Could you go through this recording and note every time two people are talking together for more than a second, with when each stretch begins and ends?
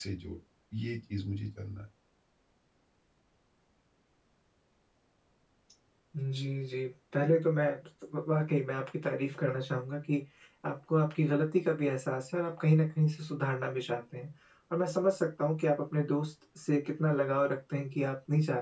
none

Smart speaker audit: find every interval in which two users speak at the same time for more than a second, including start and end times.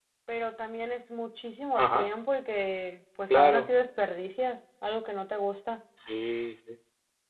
none

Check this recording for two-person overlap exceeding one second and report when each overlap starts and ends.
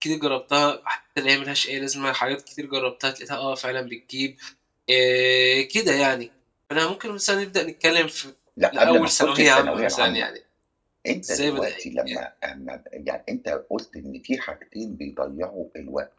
8.8-10.3

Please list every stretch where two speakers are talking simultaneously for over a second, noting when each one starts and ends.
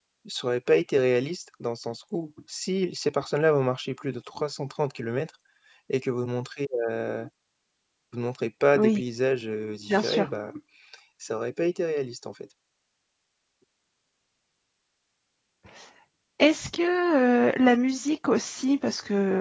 none

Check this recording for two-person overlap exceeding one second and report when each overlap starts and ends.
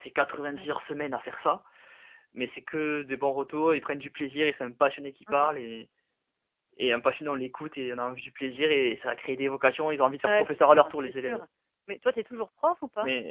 10.2-11.4

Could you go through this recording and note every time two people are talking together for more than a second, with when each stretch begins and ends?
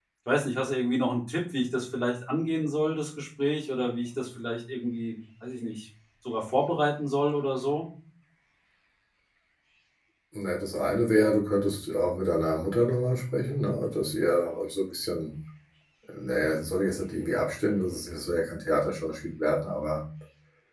none

